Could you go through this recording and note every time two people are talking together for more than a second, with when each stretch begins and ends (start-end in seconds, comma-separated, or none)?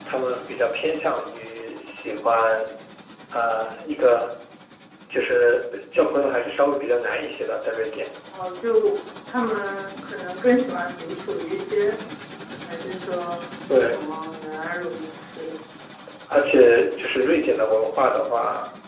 none